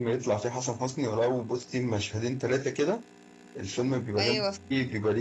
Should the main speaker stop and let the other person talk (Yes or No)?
No